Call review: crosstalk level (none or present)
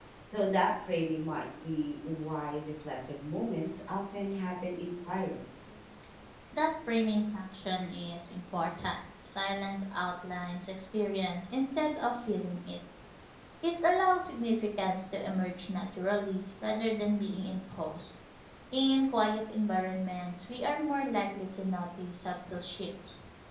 none